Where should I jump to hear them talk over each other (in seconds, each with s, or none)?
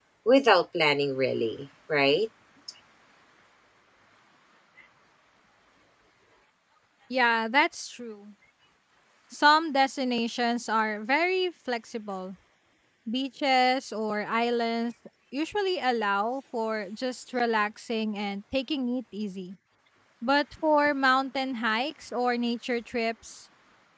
none